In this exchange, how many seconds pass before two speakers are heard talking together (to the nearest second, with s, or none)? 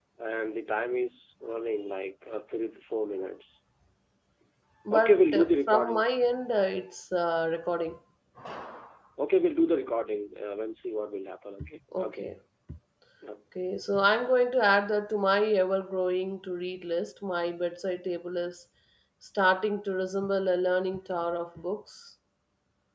5 s